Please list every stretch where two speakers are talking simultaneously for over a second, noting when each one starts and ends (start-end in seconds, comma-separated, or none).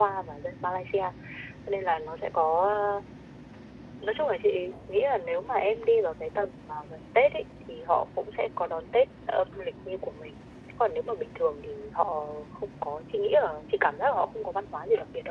none